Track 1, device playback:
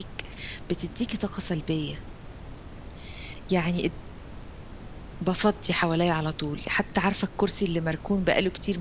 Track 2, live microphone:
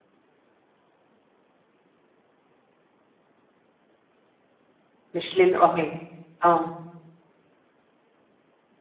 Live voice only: مش للقعاد آه.

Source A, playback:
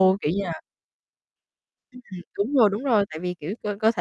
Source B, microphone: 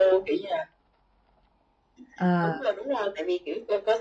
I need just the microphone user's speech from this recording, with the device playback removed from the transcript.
Ờ.

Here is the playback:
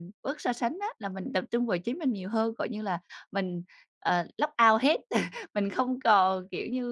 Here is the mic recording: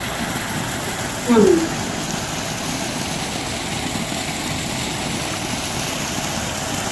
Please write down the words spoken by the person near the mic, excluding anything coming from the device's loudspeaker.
Ừm.

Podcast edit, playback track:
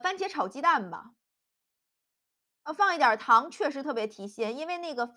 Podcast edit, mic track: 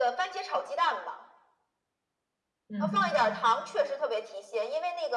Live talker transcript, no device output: 嗯。

